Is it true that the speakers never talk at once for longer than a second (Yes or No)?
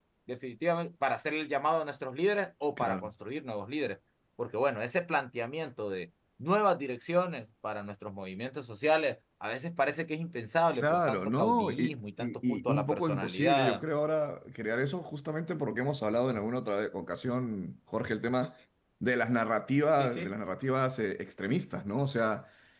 No